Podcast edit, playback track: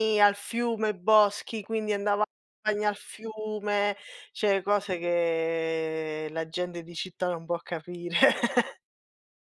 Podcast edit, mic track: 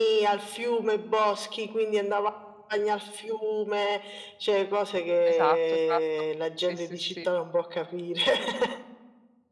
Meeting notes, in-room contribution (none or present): present